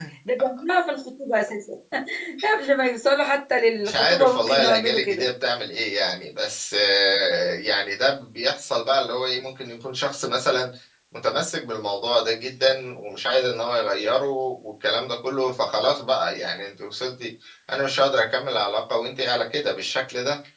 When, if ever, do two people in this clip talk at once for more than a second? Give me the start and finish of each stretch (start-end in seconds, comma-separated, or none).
3.8-5.3